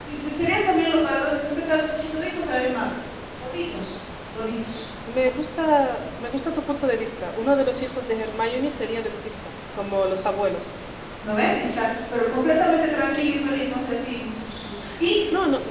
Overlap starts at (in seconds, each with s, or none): none